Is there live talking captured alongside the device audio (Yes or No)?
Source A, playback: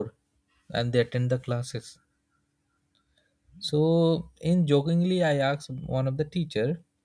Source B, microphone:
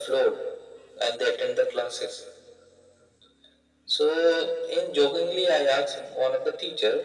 No